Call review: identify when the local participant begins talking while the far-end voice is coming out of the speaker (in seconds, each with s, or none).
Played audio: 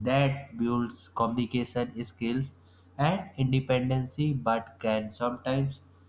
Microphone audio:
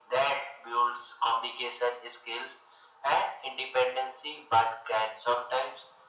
none